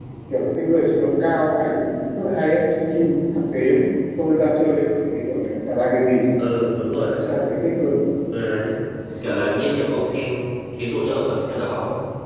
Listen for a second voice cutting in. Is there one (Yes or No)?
No